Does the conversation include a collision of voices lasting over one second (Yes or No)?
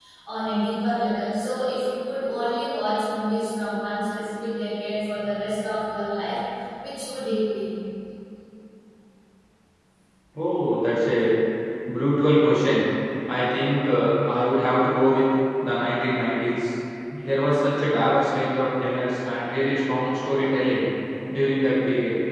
No